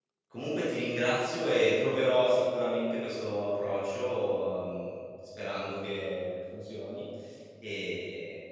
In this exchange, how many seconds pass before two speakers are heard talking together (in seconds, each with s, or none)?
none